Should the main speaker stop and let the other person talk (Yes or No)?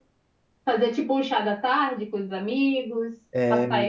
No